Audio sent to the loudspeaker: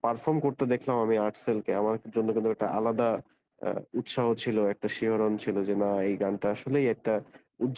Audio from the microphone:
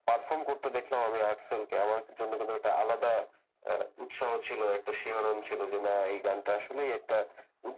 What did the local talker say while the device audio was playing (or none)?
none